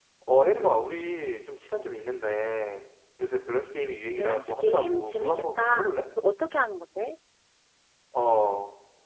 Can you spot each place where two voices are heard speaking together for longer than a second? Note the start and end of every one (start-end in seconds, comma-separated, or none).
4.2-5.8